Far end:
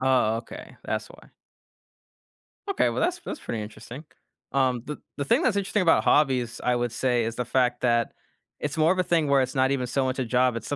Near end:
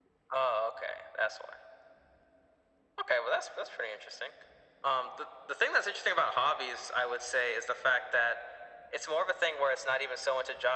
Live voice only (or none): none